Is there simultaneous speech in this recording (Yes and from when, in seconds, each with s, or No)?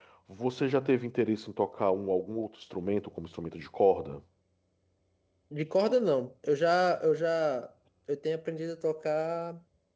No